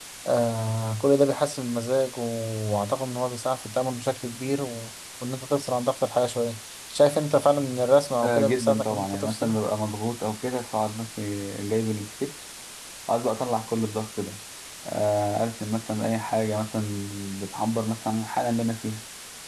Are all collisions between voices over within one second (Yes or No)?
No